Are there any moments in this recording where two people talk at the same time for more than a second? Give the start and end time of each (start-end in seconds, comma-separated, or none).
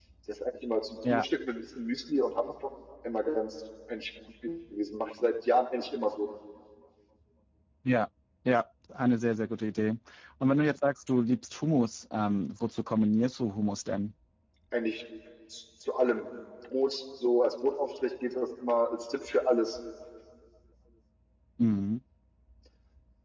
none